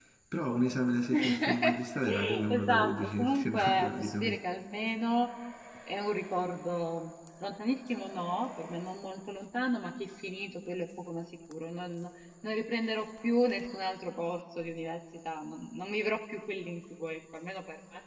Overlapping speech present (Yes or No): Yes